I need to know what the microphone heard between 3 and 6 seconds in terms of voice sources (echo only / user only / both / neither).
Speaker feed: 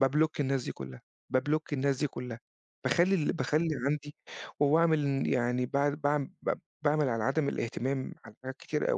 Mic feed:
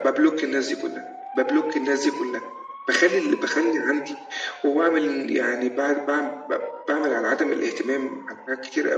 echo only